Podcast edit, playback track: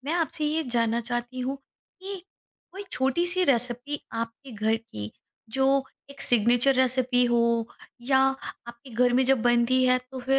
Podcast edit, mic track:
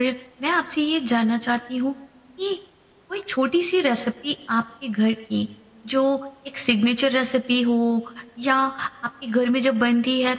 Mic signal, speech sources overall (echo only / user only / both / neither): echo only